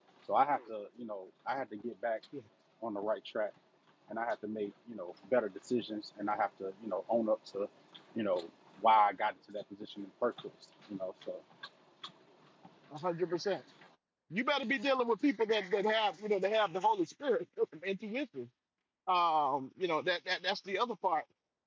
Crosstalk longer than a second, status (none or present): none